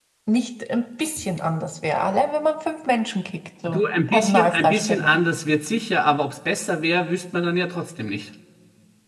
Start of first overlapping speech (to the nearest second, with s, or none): 4 s